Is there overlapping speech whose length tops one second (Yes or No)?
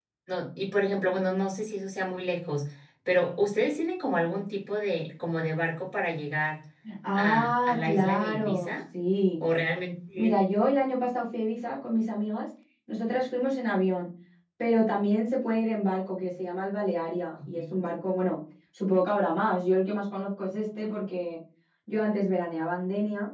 Yes